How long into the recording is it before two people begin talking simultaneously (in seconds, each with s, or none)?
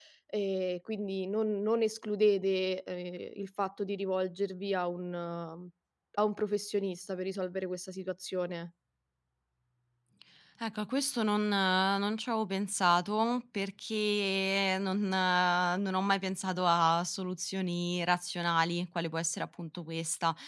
none